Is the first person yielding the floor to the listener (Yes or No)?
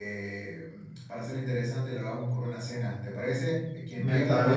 Yes